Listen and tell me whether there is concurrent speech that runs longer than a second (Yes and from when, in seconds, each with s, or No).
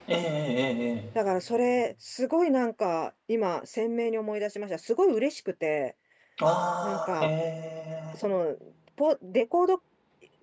No